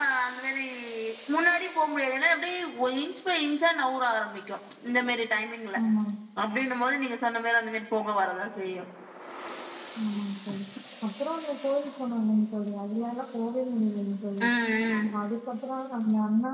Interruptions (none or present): none